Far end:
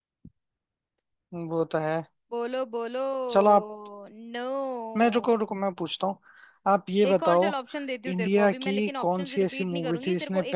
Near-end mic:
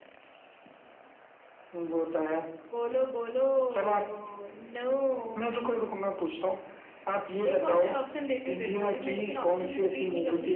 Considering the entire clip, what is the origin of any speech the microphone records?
echo only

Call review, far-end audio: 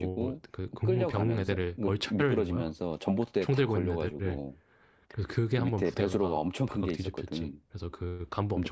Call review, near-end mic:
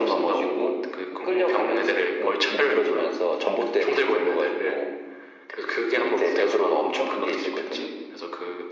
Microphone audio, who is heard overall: echo only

